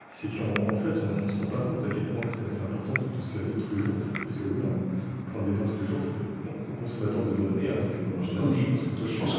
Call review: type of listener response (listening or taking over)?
taking over